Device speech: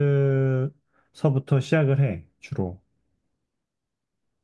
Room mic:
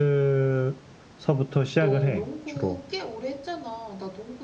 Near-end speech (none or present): present